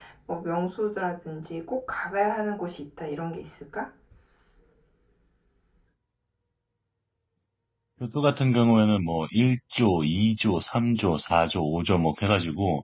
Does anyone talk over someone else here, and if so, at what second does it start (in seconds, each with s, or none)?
none